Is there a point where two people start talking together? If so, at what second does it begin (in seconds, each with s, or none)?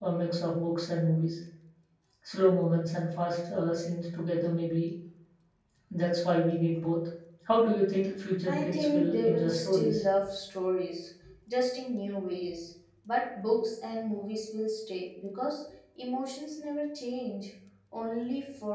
8.5 s